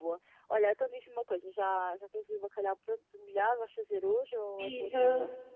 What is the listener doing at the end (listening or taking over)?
taking over